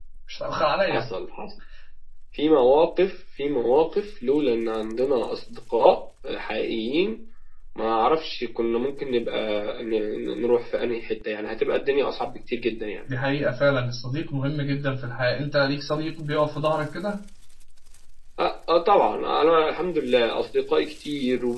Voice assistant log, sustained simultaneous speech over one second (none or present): none